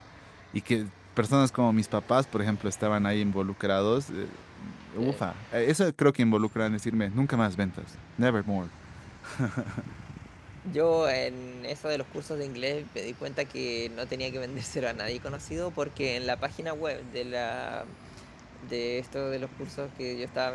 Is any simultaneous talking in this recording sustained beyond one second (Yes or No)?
No